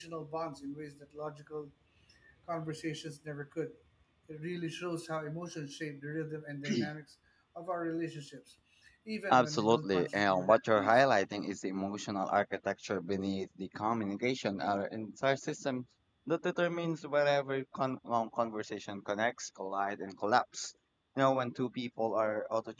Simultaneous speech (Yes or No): Yes